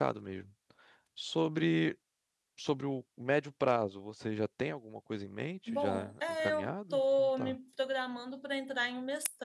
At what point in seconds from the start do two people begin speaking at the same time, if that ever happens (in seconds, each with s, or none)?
5.7 s